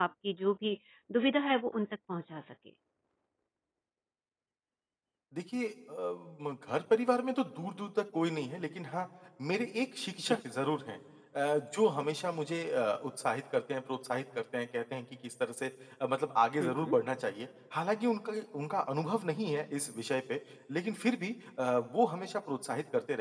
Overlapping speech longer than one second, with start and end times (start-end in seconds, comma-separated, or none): none